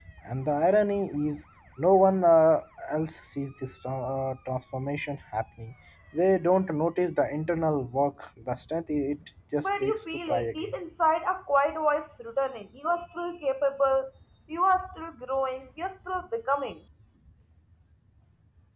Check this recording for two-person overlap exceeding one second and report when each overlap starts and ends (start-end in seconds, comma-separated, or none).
9.6-10.8